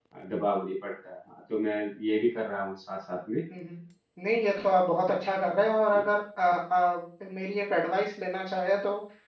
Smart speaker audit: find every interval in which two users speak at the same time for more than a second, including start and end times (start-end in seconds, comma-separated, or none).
none